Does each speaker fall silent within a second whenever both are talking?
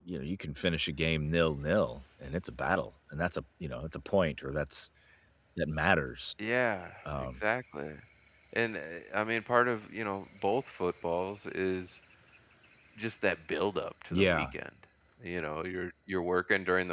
Yes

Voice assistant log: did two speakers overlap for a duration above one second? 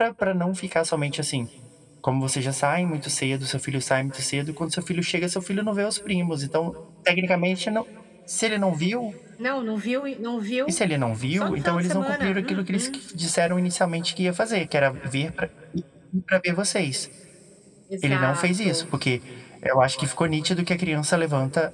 Yes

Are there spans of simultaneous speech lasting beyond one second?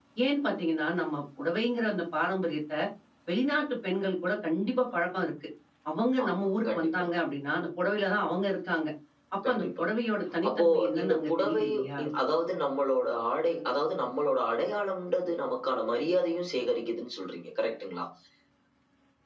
Yes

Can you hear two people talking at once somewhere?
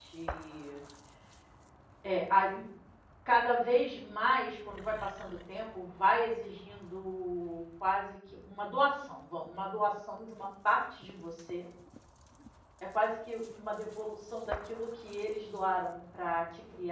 No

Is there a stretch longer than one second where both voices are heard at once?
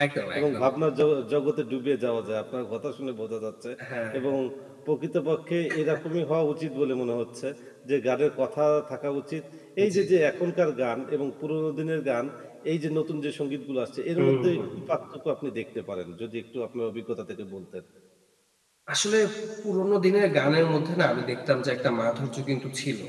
No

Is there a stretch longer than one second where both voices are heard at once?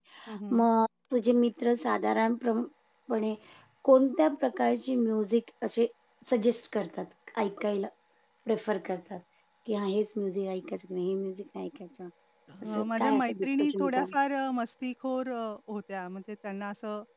Yes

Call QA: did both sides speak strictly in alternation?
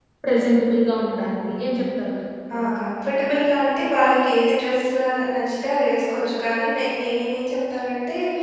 Yes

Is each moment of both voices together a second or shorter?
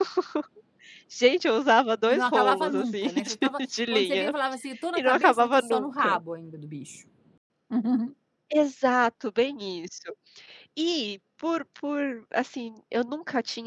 No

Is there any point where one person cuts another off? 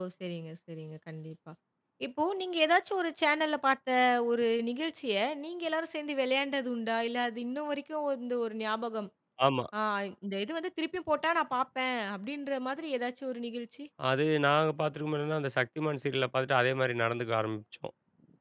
No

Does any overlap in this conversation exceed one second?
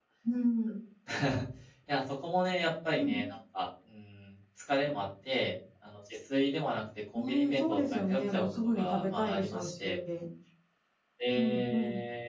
Yes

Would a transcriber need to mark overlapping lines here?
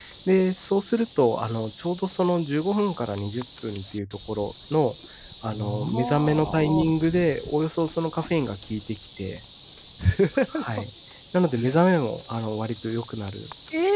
Yes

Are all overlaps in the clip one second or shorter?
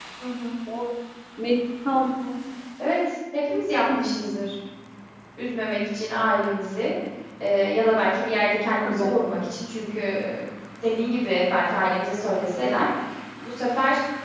Yes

